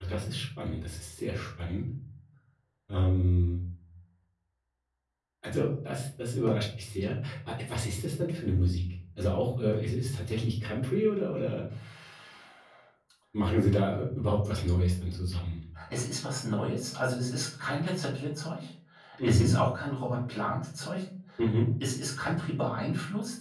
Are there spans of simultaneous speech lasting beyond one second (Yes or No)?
No